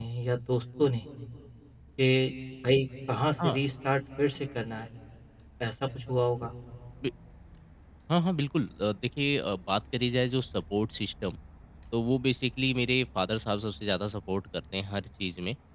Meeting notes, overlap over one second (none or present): none